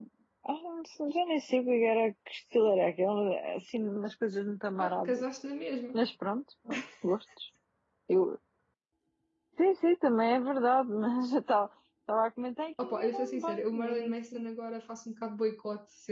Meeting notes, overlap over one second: present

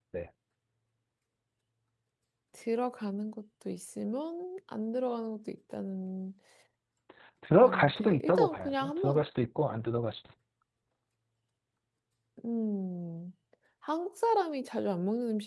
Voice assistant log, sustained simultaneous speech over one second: present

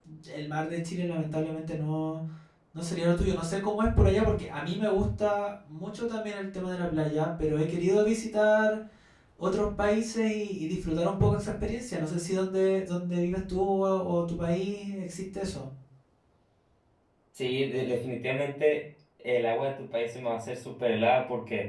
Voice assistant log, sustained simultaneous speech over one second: none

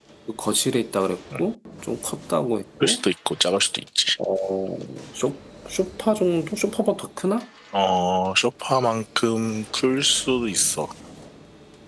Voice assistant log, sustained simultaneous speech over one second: none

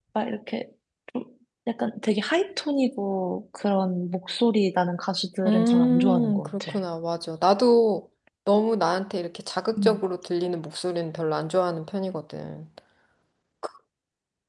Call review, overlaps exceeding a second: present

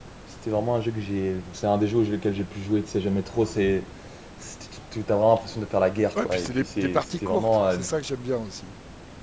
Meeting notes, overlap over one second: present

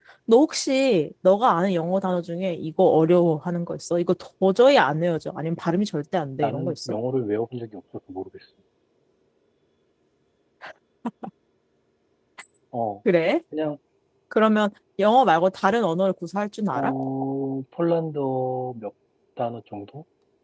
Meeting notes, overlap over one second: none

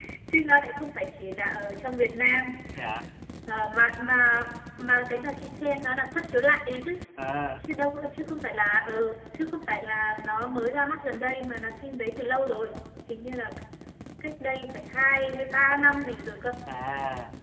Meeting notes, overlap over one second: none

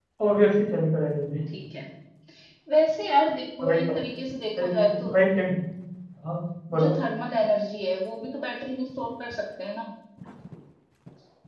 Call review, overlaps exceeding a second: none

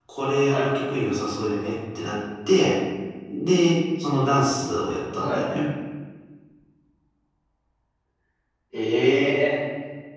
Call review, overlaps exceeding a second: none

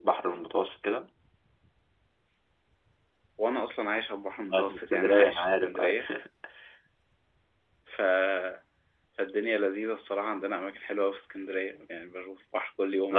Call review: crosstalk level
present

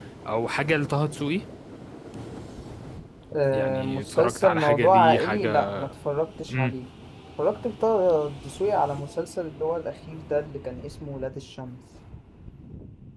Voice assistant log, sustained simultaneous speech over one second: present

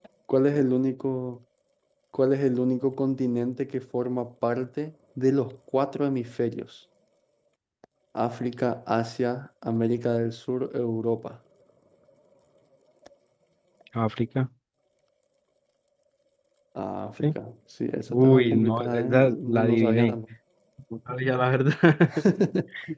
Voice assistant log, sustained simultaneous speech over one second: present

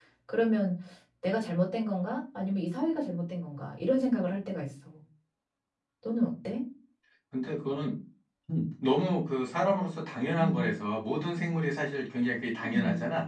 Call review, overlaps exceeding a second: none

